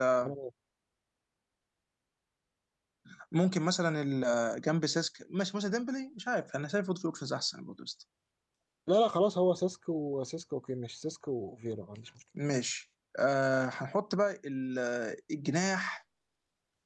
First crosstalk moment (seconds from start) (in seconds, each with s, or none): none